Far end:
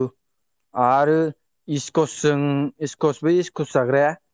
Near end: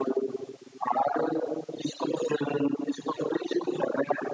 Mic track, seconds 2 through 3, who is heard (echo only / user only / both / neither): echo only